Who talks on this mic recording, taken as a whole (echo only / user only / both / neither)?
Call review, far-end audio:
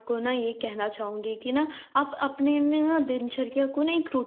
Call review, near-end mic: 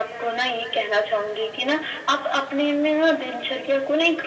echo only